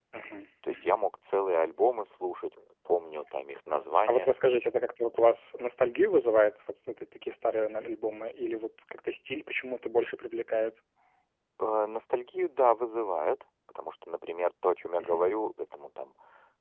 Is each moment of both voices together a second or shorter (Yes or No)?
Yes